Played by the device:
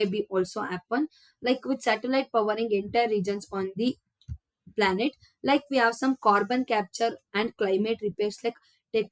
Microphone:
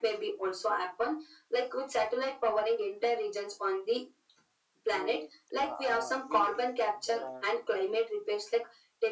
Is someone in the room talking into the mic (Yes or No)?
Yes